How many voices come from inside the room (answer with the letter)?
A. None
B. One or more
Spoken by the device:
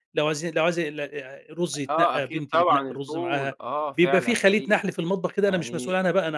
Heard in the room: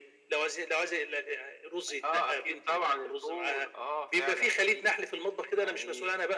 A